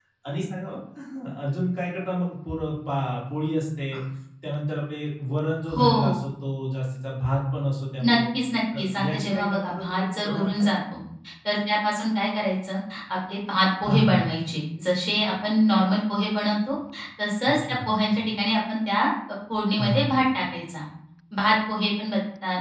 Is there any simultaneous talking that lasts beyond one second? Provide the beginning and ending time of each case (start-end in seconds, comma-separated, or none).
8.8-10.6